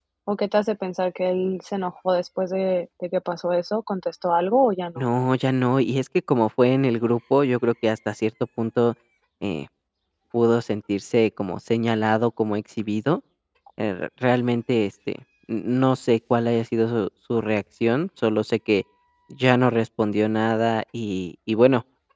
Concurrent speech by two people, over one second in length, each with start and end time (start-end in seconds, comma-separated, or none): none